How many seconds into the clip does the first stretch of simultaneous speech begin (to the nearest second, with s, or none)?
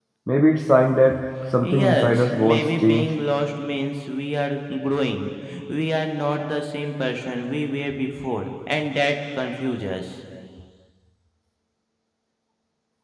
2 s